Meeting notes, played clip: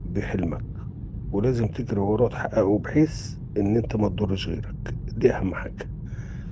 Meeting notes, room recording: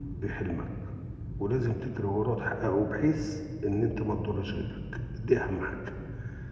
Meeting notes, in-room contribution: none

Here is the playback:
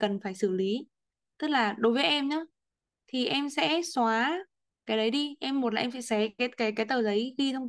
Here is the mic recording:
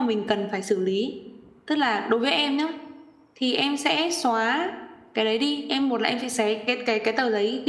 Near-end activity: none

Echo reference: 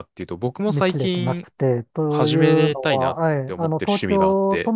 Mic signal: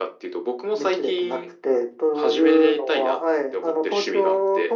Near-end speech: none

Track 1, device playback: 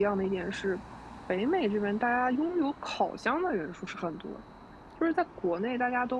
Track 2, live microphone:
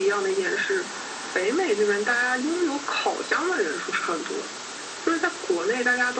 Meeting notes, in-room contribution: none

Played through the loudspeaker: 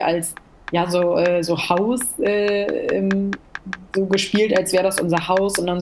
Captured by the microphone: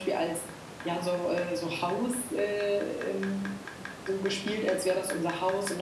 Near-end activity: none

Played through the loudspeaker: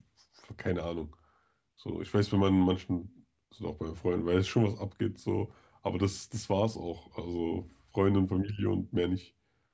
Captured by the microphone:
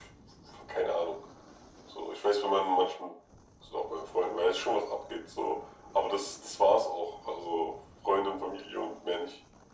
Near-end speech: none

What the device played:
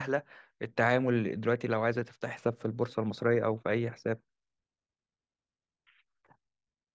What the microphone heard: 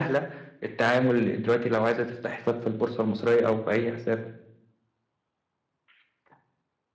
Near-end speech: none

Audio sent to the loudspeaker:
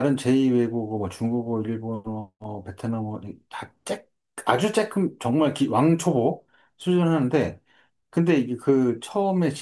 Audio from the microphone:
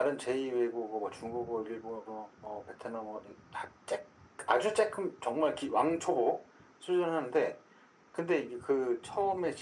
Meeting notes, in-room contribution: none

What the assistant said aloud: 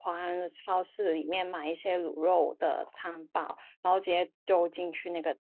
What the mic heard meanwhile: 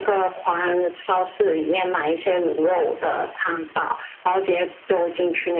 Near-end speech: none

